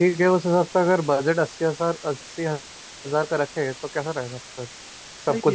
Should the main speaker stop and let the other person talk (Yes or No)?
No